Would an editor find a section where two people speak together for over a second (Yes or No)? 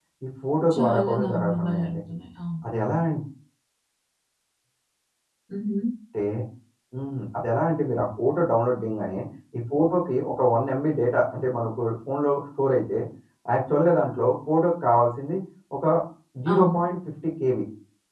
Yes